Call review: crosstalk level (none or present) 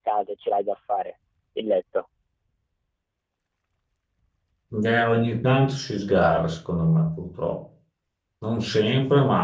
none